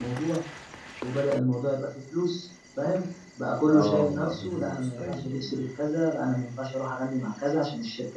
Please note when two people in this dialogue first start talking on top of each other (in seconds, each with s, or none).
3.6 s